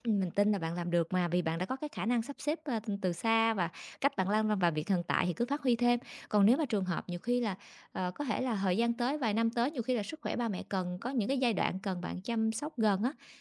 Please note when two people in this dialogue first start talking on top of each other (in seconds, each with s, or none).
none